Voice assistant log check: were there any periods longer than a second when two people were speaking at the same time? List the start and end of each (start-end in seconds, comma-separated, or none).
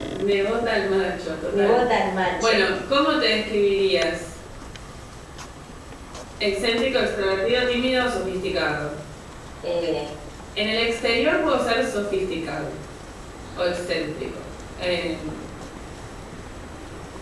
none